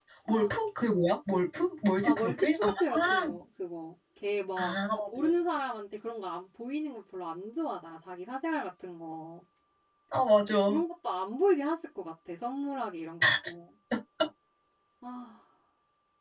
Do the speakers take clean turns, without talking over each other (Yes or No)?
No